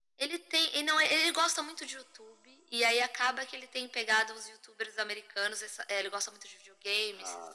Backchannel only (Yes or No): Yes